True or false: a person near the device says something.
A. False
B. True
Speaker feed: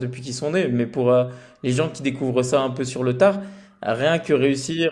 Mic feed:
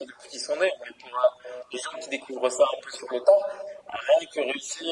A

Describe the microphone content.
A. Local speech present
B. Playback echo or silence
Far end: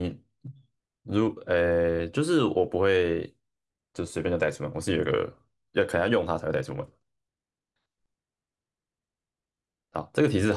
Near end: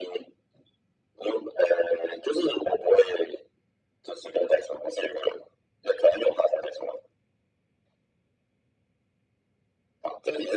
B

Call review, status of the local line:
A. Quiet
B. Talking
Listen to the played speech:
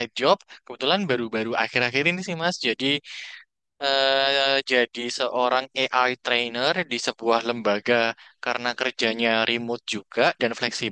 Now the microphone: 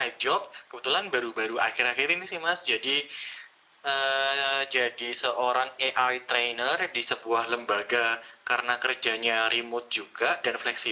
A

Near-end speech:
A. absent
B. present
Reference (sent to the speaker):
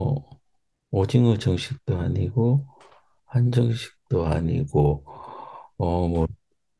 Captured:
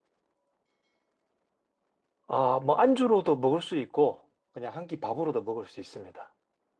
B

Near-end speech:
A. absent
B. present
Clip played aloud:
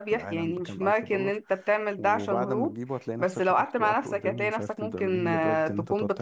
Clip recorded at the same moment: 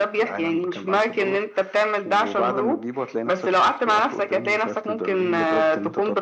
A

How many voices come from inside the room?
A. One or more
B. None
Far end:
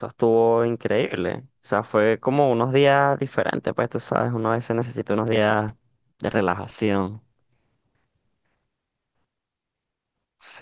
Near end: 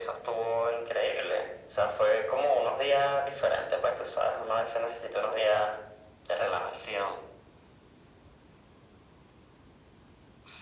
B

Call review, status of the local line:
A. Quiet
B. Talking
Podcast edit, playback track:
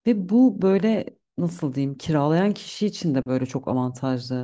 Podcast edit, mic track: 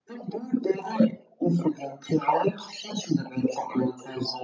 A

